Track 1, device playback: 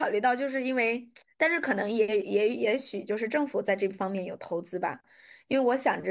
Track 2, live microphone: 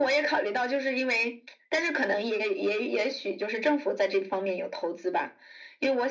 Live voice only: none

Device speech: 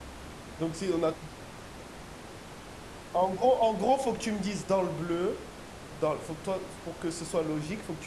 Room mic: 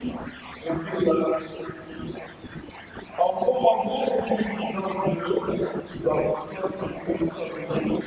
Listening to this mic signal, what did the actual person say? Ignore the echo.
none

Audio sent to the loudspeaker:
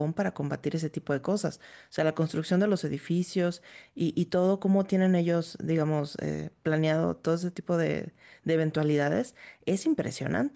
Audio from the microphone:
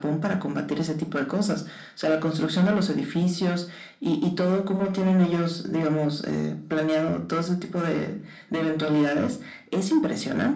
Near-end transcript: none

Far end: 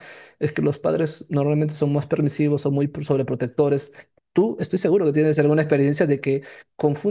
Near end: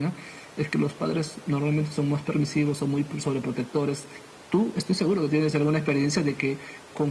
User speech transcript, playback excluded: none

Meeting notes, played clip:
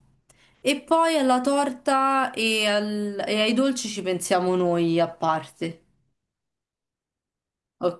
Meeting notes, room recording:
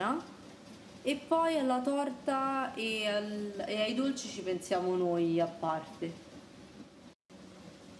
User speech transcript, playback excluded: none

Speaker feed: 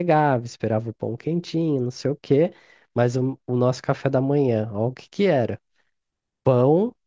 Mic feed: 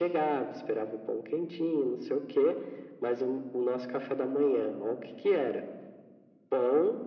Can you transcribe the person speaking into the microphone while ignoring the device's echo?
none

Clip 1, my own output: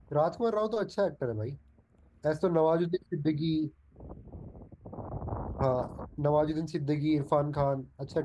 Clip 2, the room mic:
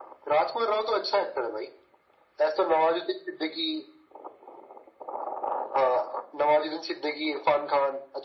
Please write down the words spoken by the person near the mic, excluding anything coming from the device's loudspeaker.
none

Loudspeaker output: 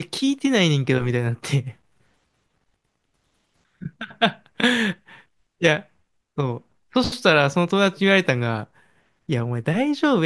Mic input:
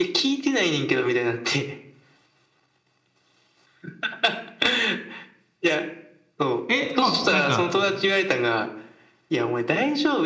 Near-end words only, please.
え、まあ、なんか、

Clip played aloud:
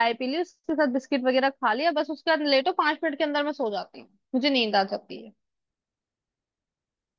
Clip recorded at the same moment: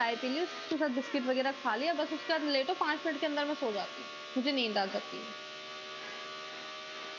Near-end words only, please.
none

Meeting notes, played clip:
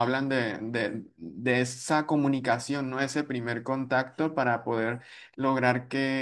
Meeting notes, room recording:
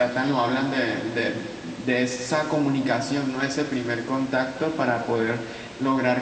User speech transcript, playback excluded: none

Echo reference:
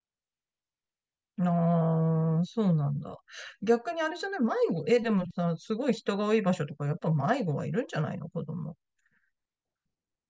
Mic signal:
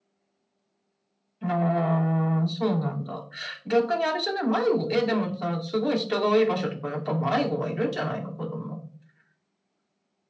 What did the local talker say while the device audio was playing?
none

